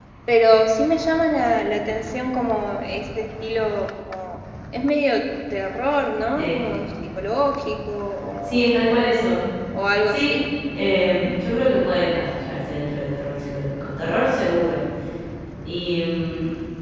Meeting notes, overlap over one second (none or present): none